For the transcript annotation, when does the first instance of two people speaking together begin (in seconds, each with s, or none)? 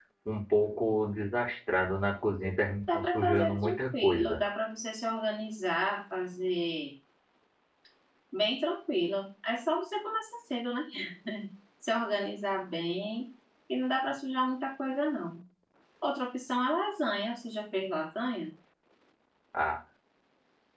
2.9 s